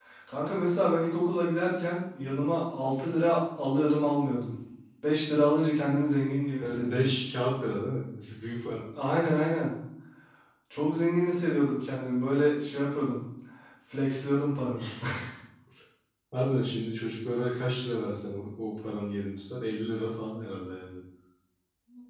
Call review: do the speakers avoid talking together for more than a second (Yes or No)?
Yes